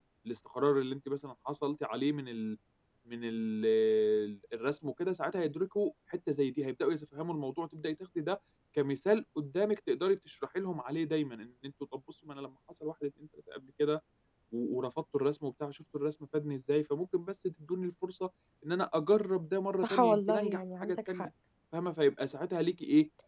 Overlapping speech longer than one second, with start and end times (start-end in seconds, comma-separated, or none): 19.8-21.3